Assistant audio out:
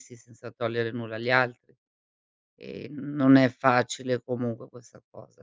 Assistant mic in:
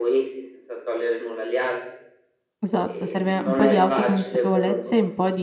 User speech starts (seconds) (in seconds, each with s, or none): 2.6 s